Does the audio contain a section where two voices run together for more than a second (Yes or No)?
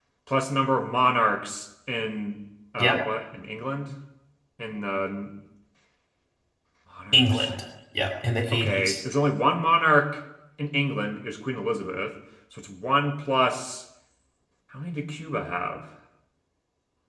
No